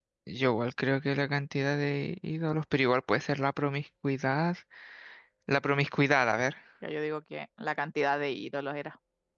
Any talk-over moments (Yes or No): No